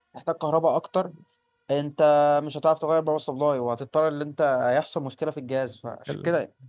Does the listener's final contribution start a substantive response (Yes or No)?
No